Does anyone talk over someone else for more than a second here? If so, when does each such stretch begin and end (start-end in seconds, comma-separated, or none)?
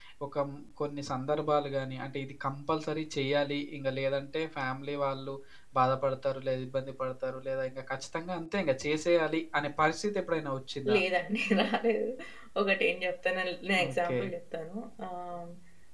none